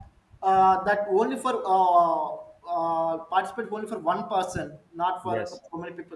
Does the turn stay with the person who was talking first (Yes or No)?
Yes